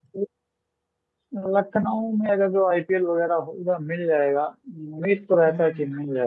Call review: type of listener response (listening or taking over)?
listening